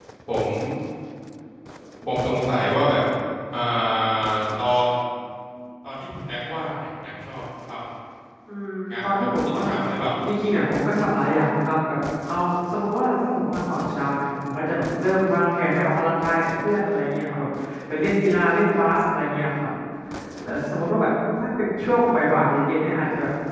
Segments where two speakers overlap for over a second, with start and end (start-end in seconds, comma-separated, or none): 8.9-10.3